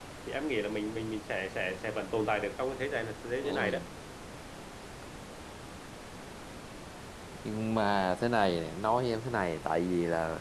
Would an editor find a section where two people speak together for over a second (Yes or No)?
No